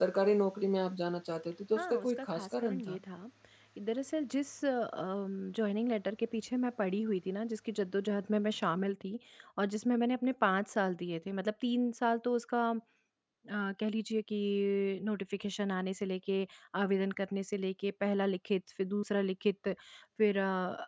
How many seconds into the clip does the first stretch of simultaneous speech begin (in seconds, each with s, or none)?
1.8 s